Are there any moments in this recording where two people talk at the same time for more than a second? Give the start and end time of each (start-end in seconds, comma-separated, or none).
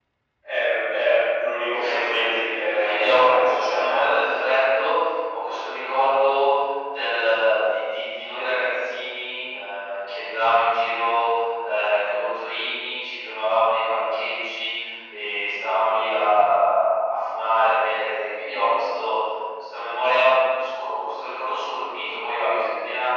1.7-4.1